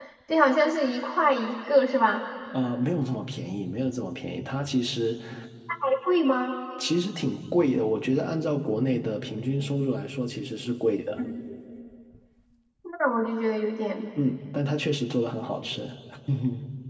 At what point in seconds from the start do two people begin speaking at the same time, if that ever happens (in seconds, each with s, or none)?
none